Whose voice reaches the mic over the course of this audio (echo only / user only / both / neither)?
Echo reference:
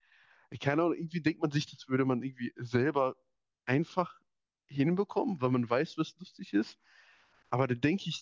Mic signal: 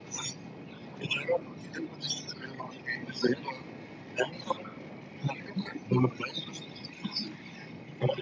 echo only